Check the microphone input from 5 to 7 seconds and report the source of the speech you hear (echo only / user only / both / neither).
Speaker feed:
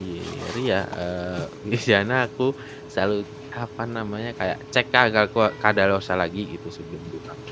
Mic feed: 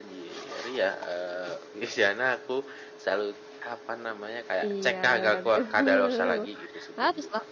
both